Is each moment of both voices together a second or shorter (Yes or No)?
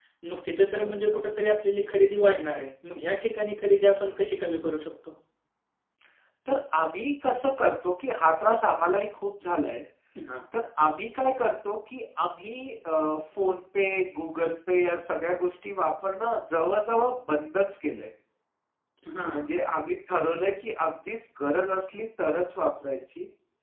Yes